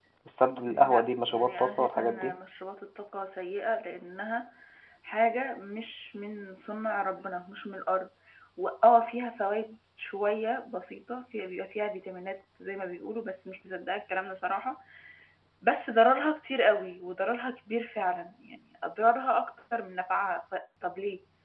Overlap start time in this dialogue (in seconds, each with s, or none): 0.7 s